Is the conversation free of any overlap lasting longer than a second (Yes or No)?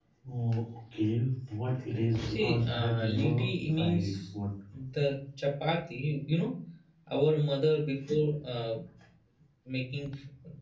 No